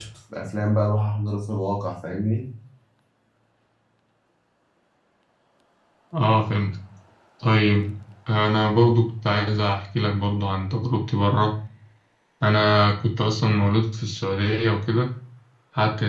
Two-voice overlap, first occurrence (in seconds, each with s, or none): none